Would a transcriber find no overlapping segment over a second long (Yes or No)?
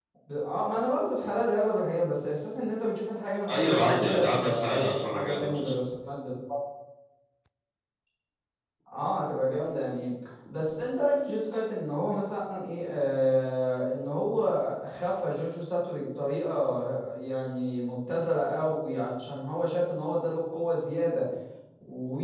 No